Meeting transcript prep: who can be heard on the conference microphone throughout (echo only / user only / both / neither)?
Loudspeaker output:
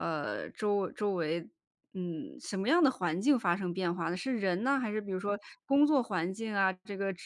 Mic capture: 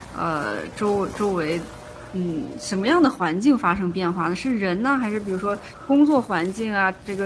echo only